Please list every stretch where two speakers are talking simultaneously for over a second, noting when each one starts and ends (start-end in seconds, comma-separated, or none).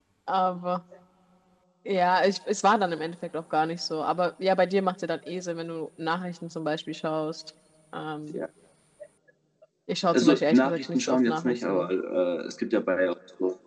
10.1-11.9